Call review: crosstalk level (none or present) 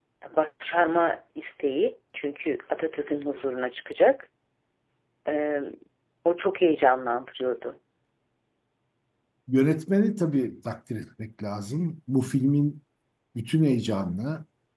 none